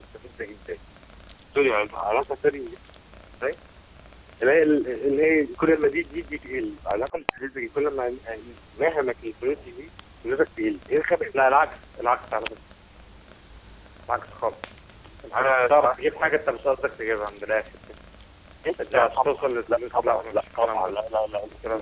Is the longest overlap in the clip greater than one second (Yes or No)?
Yes